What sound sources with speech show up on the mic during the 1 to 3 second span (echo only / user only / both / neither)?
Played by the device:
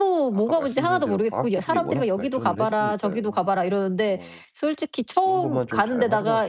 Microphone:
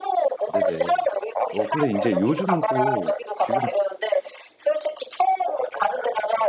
both